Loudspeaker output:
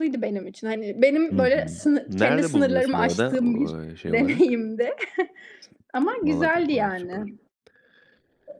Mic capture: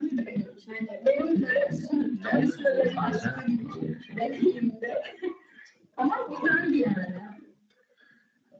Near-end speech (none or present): none